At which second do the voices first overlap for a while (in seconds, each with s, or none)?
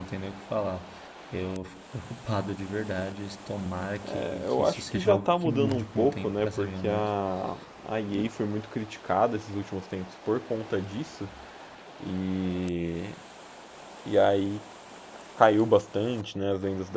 4.0 s